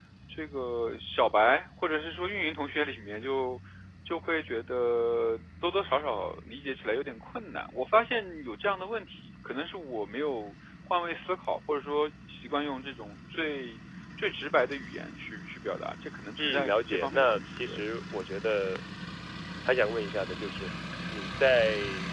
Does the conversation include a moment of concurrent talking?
Yes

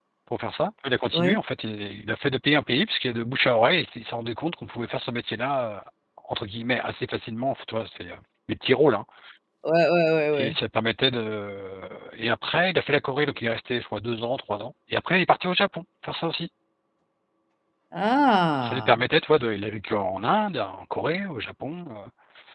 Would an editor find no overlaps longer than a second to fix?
Yes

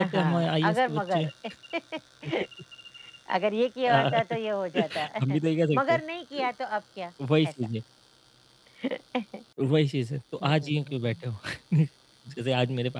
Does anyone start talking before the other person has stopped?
Yes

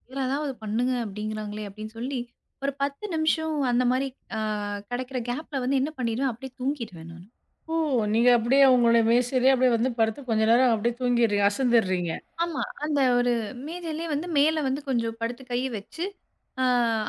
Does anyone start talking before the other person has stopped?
No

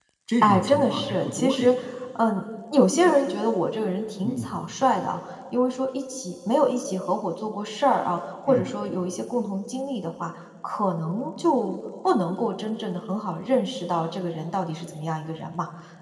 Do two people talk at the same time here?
Yes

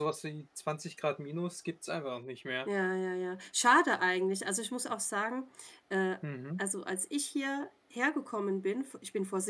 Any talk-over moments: No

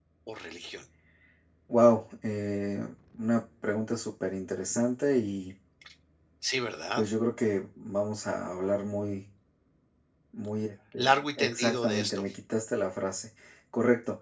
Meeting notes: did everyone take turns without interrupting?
No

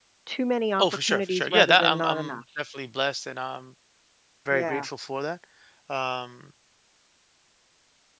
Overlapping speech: Yes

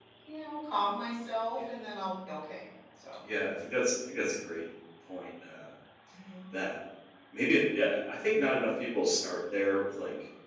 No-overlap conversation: Yes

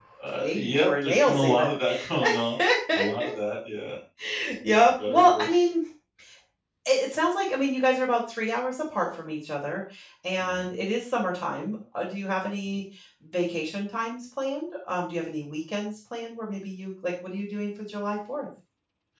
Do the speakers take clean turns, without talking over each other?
No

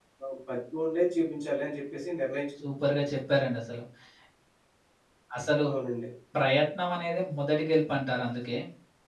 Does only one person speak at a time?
Yes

